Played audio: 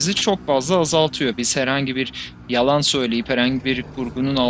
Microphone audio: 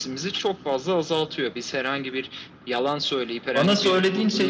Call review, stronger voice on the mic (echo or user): user